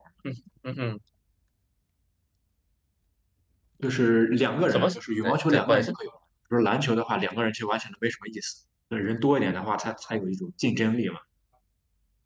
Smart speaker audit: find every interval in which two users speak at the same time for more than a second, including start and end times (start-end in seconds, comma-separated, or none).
4.7-6.0